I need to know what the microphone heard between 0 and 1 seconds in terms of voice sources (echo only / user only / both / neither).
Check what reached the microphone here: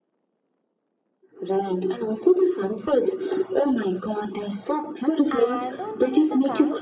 neither